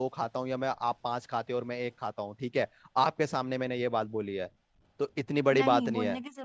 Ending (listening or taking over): taking over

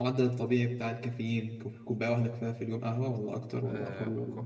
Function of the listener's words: taking over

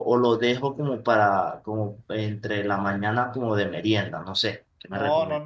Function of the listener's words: taking over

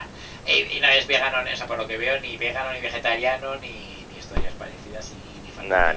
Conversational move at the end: listening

